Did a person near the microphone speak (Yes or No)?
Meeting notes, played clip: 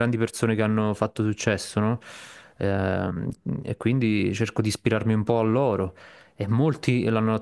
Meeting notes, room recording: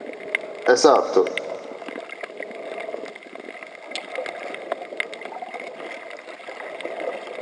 Yes